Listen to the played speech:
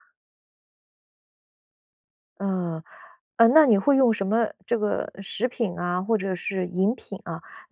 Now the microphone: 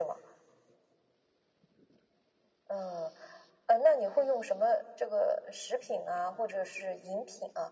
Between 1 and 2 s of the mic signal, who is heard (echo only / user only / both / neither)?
neither